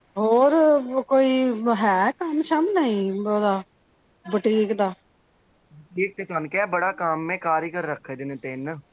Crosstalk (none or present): none